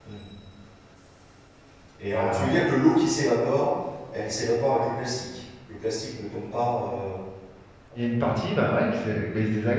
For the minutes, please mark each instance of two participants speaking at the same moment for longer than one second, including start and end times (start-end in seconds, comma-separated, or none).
none